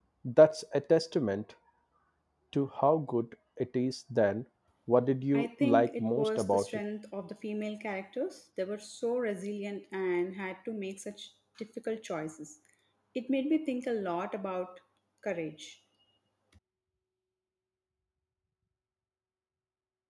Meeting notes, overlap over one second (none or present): present